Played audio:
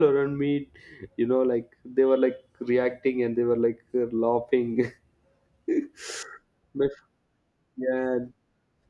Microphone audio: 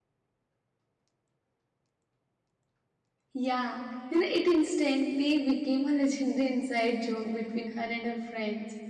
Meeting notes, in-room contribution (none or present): present